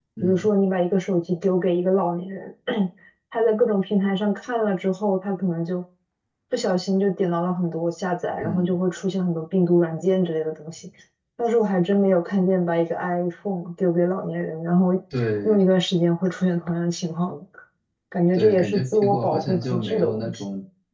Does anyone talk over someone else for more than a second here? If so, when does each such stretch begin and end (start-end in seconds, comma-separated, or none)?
18.4-20.4